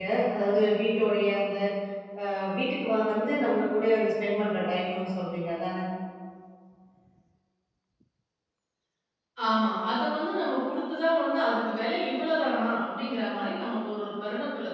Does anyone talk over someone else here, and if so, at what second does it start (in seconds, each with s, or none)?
none